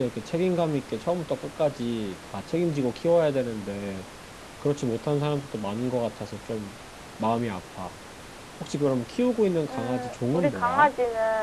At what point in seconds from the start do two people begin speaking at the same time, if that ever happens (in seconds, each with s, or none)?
9.7 s